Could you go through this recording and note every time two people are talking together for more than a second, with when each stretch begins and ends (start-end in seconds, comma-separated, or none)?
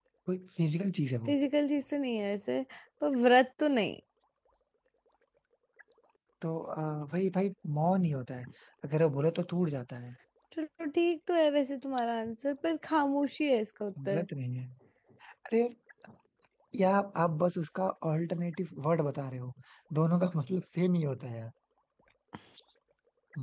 none